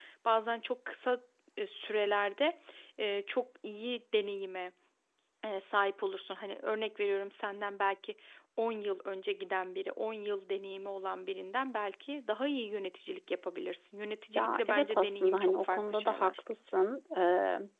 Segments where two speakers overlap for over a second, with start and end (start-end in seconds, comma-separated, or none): 14.4-16.3